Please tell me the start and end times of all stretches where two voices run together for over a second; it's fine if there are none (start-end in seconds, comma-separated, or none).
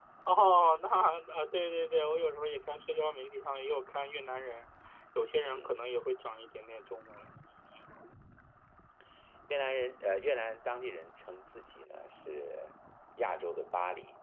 none